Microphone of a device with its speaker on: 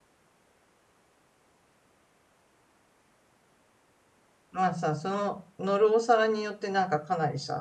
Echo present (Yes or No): No